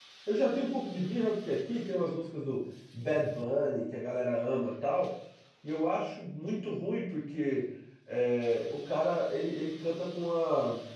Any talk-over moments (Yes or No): No